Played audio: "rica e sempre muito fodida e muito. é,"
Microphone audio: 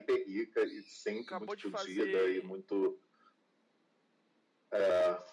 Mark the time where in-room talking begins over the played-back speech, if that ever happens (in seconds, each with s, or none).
1.2 s